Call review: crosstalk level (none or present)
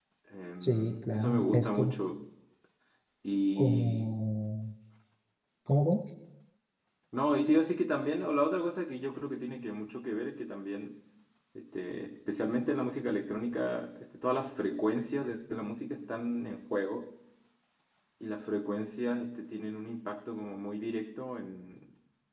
present